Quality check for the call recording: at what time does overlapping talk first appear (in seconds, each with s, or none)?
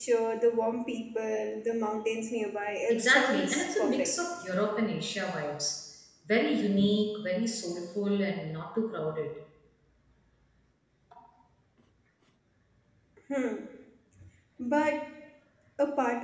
2.9 s